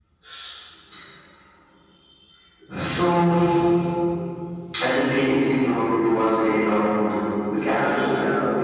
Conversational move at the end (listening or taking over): taking over